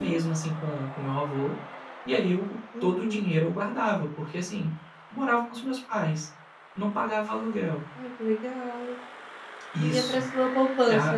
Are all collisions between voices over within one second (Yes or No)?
Yes